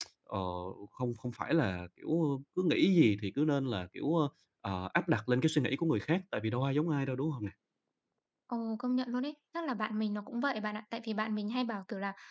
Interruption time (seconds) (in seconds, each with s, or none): none